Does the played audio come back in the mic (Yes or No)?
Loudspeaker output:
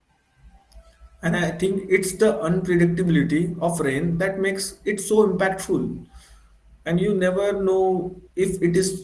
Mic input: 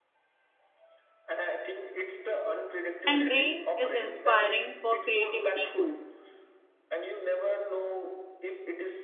Yes